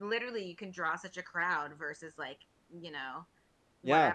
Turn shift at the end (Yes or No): No